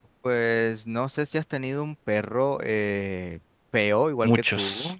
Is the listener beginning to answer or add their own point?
No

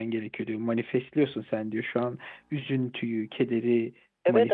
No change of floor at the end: No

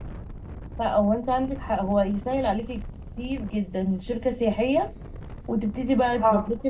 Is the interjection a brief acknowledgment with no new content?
Yes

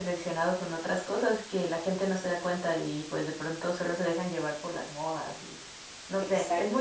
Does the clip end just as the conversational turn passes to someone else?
Yes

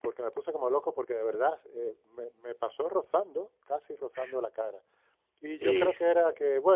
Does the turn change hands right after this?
No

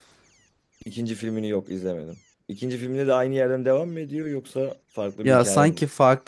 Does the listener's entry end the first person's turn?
Yes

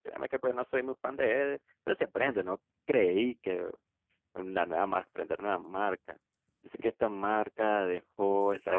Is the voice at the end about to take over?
Yes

